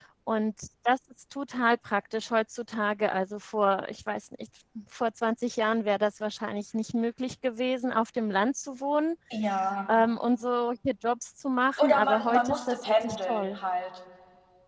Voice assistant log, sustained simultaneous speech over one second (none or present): present